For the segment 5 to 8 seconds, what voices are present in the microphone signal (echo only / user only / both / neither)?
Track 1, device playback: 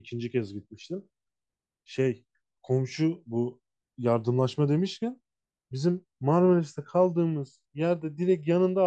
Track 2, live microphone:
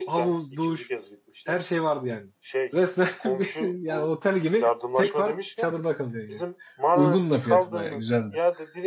both